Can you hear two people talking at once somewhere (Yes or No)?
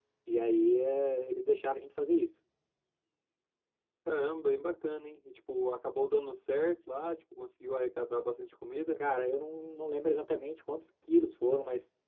No